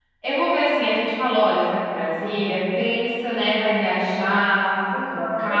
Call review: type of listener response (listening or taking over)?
taking over